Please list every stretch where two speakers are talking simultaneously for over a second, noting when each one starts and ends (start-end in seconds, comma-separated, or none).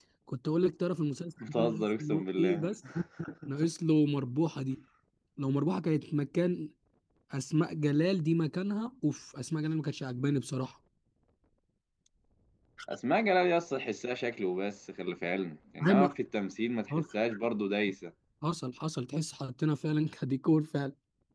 1.5-2.7